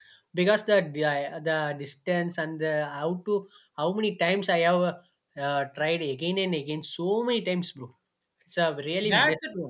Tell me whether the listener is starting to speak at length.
Yes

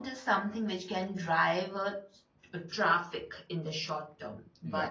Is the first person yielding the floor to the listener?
No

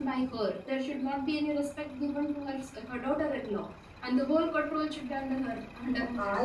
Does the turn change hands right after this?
Yes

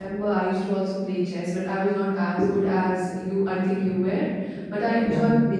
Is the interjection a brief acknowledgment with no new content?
Yes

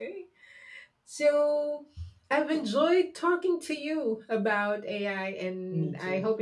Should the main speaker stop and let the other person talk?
No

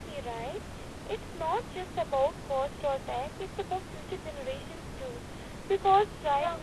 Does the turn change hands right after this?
No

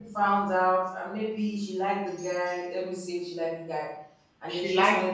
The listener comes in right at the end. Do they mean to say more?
No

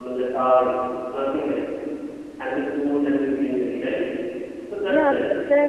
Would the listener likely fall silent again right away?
No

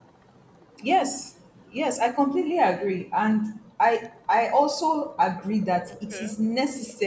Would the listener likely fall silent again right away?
Yes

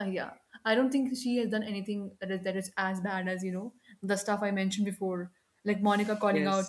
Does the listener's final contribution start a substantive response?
No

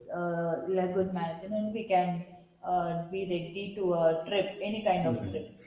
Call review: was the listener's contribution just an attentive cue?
No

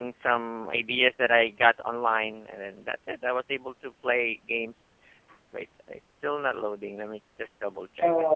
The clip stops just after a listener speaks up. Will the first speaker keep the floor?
No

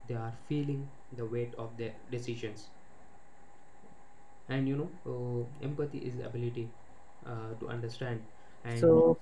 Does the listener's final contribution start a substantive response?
No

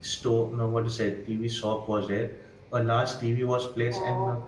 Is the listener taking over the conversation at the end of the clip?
Yes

